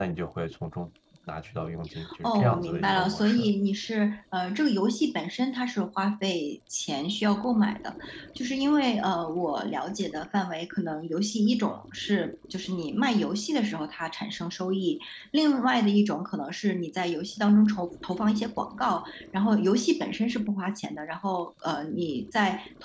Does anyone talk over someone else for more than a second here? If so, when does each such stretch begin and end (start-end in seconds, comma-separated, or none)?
2.2-3.5